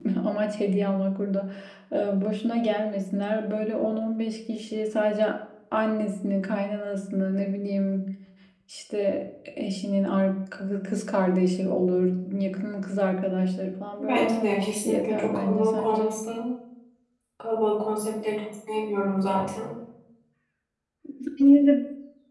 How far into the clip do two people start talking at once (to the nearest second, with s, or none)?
14 s